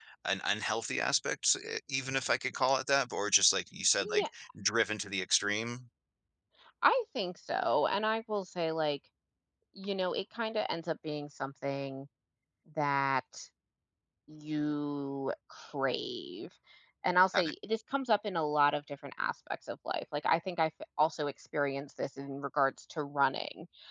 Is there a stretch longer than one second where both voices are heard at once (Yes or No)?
No